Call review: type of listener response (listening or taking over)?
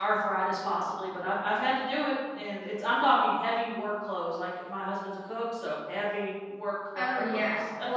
taking over